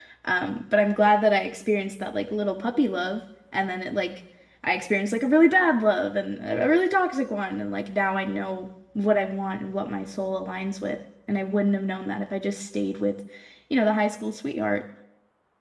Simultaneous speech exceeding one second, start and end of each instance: none

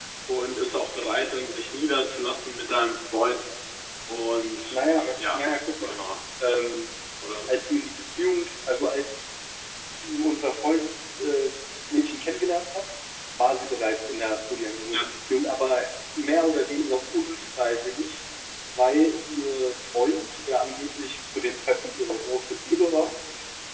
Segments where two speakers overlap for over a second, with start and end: none

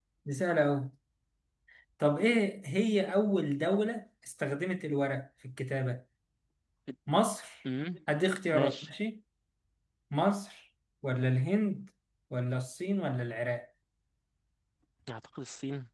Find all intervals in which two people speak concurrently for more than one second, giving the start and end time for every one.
none

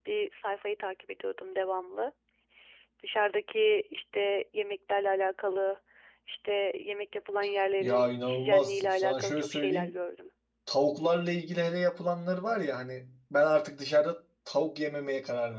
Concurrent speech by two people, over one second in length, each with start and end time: 7.8-9.9

